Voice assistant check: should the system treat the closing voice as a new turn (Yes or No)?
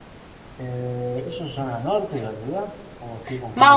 Yes